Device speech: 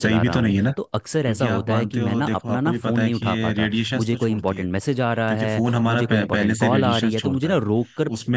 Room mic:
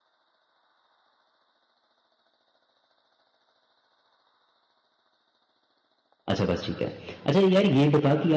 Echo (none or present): none